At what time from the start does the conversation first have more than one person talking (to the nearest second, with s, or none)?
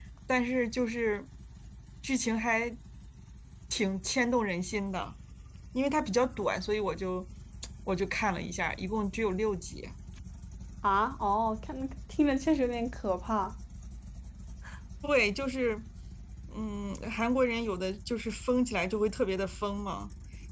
none